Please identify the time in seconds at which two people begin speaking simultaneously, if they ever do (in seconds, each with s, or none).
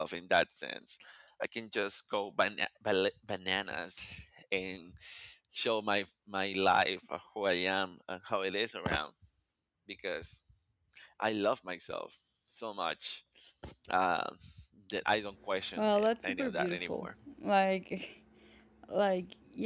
15.8 s